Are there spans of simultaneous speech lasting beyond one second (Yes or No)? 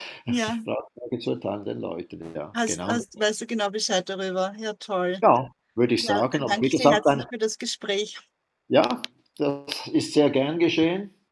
Yes